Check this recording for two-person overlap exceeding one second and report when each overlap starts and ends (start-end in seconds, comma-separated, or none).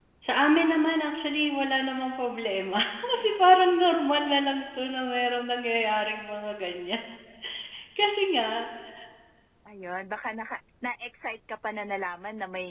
none